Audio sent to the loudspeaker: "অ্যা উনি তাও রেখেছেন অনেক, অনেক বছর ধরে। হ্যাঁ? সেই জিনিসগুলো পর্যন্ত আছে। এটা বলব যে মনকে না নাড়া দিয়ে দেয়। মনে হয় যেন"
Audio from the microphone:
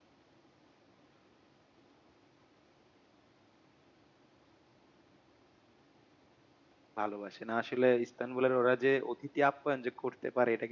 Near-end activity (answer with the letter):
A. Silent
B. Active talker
B